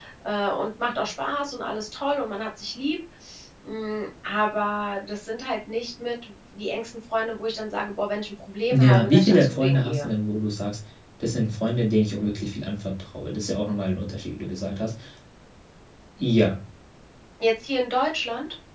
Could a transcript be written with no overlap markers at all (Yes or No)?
No